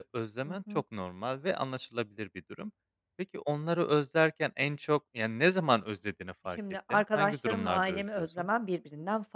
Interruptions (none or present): present